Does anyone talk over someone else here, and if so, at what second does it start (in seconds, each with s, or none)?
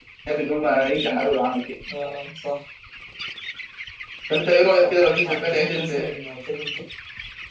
4.8 s